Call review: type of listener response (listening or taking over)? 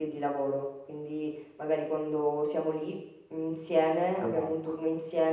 listening